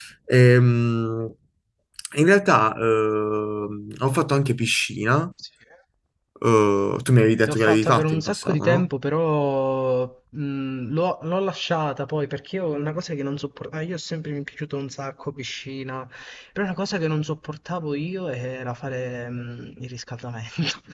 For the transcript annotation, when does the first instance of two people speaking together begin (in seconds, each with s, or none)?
7.5 s